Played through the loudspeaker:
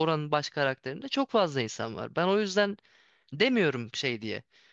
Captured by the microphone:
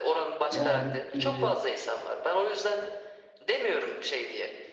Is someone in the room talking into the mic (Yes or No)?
Yes